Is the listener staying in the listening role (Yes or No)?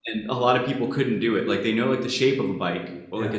Yes